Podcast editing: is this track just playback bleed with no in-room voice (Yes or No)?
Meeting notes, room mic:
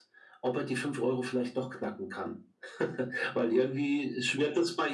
Yes